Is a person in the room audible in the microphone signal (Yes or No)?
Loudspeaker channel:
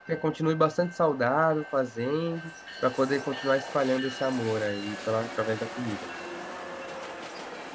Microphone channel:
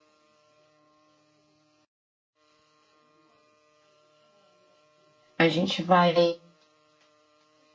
Yes